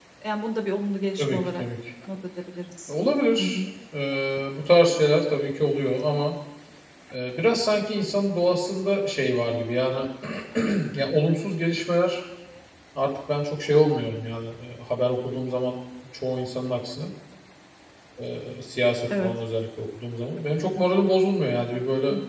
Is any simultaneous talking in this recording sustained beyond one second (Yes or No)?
No